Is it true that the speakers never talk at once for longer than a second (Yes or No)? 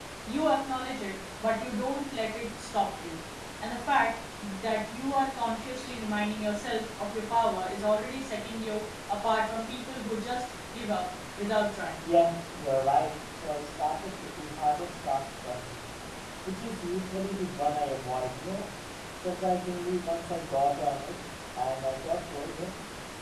Yes